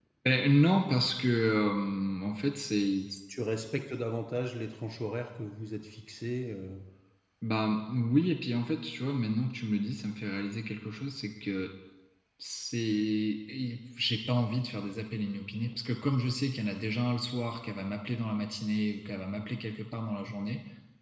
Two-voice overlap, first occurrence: none

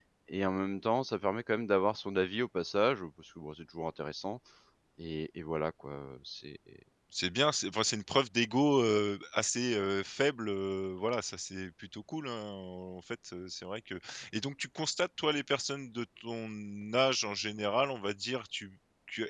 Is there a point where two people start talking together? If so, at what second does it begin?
none

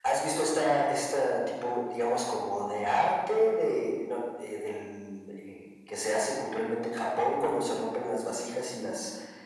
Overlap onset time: none

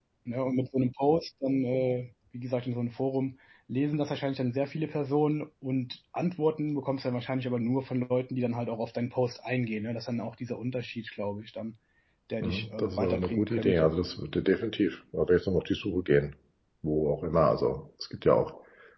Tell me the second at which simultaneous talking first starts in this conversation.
12 s

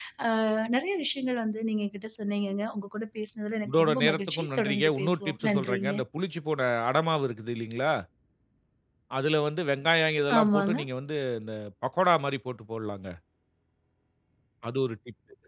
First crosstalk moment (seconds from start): 4 s

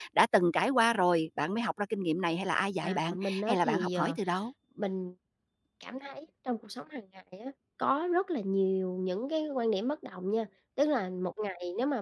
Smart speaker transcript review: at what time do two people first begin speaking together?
3 s

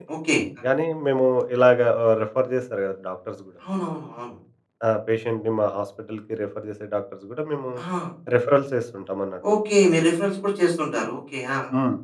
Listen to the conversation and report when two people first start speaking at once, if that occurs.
none

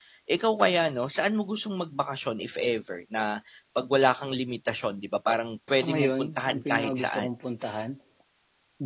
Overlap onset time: 6 s

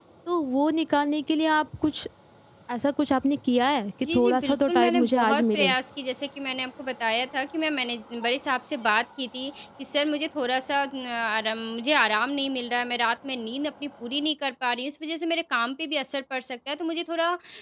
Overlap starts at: 4 s

